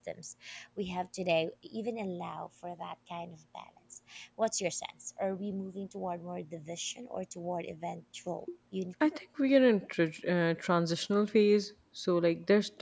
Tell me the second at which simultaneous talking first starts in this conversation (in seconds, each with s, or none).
none